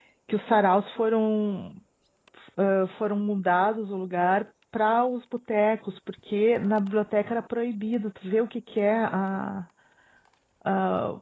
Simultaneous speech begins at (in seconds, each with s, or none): none